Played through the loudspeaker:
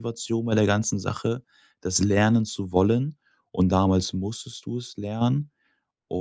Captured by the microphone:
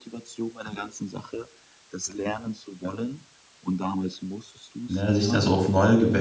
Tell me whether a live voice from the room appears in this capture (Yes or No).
Yes